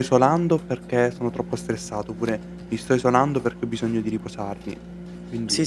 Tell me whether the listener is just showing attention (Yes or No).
No